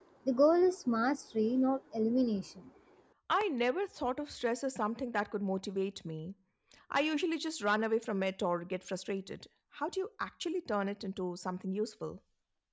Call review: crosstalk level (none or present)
none